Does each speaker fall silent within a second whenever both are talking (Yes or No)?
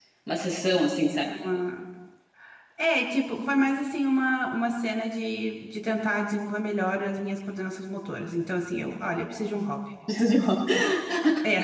Yes